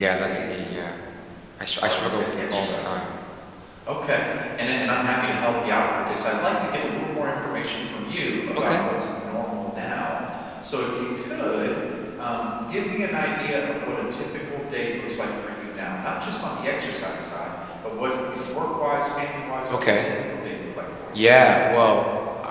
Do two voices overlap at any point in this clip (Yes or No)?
Yes